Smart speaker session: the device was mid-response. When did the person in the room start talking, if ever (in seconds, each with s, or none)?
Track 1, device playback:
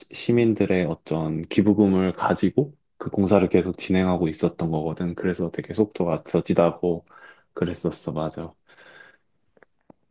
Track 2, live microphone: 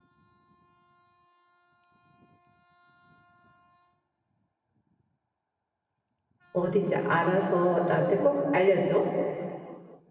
6.5 s